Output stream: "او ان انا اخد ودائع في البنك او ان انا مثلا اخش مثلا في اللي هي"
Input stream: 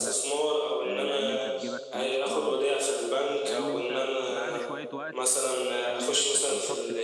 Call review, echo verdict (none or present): present